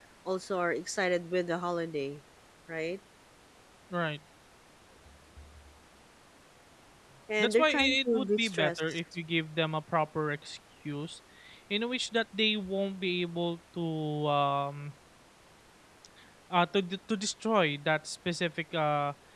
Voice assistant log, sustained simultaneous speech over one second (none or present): present